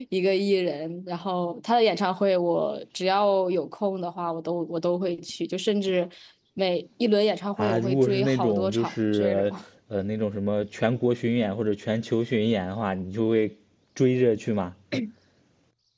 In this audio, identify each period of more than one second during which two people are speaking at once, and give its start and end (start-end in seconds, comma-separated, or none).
7.6-9.5